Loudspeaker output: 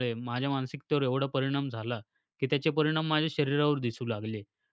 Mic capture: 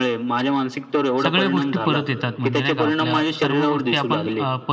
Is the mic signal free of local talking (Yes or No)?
No